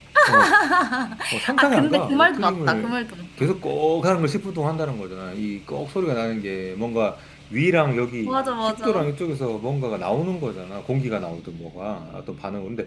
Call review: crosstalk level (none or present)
present